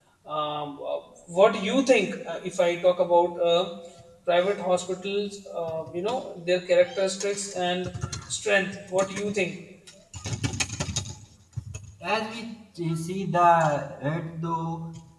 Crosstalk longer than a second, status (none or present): none